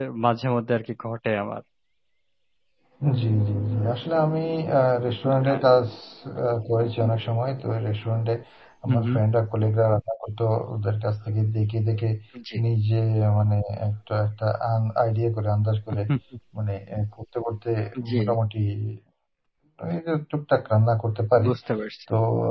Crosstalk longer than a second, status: none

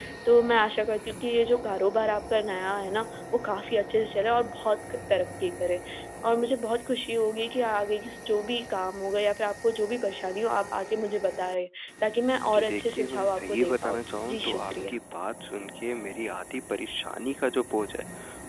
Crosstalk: present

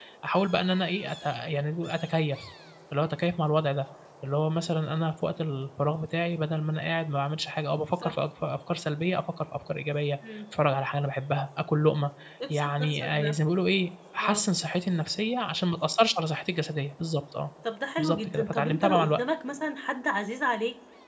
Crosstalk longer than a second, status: present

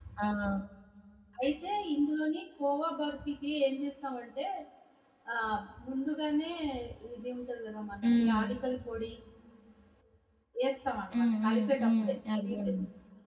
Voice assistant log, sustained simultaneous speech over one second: present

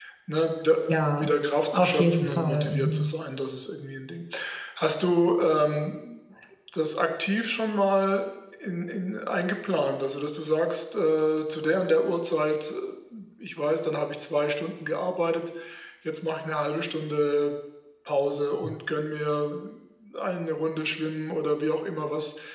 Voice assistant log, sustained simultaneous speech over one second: present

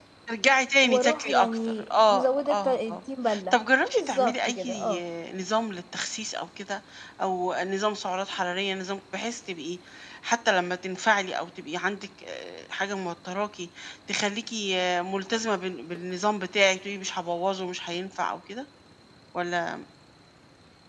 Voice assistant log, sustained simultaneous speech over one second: present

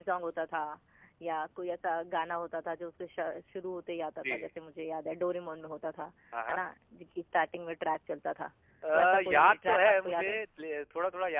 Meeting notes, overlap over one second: present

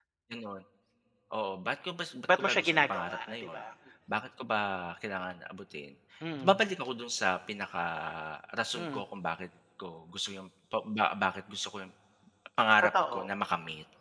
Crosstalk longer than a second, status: present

